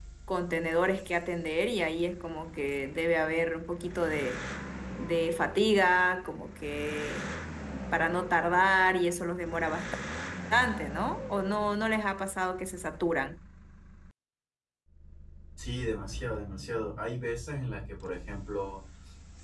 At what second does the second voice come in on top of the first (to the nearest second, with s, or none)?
none